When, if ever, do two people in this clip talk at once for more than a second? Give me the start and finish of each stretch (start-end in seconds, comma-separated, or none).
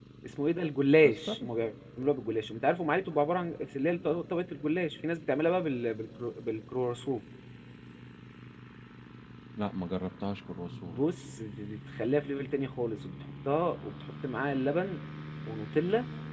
none